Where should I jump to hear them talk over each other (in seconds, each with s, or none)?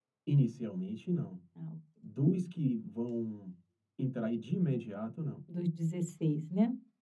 none